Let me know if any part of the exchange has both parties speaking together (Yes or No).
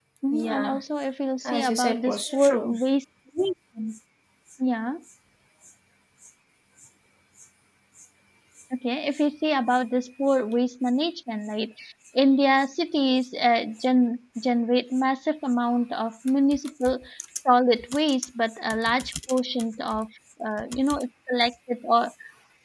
Yes